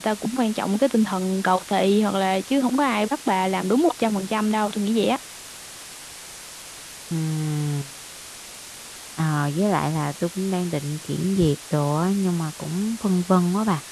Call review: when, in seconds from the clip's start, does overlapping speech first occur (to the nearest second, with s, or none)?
none